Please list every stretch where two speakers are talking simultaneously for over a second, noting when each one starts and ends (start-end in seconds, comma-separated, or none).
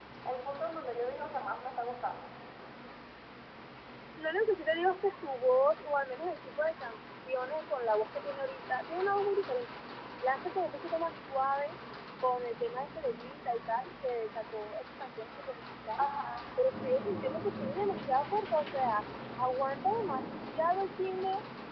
none